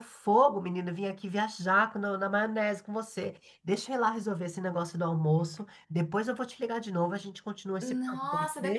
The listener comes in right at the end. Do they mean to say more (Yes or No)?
Yes